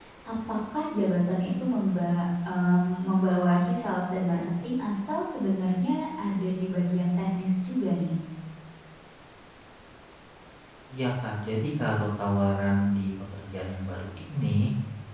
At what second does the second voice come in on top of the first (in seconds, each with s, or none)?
none